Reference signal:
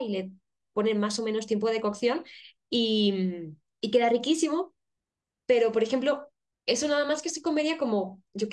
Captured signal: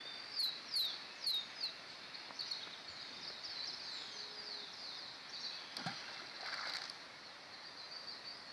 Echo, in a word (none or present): none